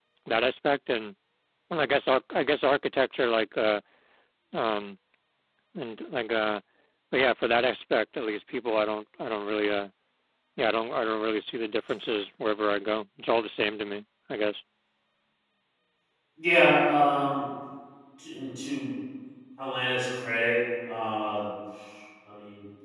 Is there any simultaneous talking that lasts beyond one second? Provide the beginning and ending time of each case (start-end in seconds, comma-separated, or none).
none